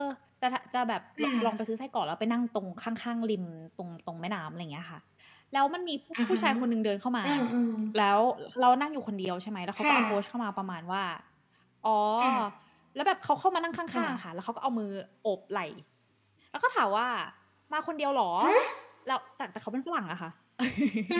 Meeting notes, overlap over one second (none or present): none